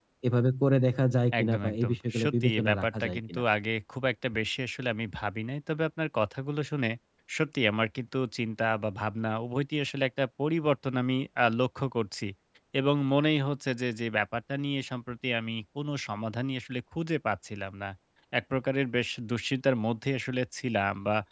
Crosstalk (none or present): present